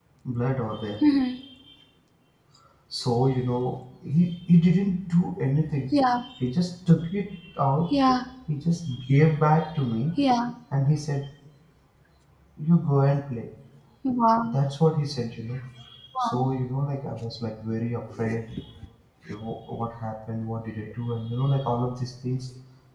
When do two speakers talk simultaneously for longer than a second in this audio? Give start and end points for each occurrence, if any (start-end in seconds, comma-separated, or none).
none